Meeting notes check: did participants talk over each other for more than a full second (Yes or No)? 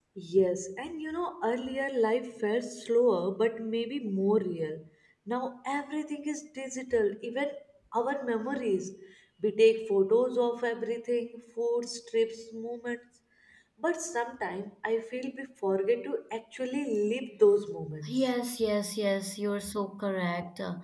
No